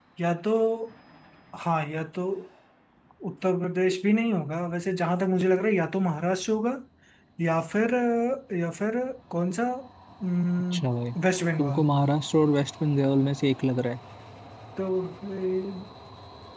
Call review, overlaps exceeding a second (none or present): none